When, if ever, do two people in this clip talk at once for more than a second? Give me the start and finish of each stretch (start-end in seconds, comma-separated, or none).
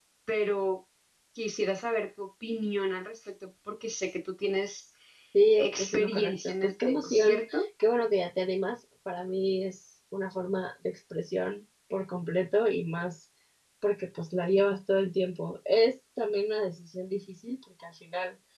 5.6-7.6